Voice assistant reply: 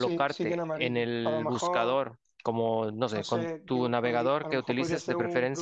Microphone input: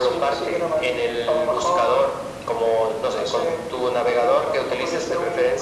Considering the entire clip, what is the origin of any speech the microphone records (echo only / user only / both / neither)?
echo only